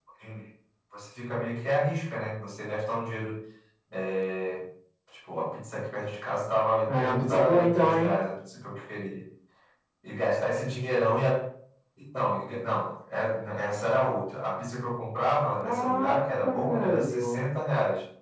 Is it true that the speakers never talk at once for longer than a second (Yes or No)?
No